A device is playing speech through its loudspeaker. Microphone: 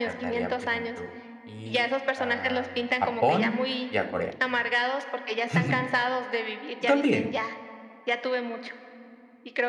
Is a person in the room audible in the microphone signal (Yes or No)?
Yes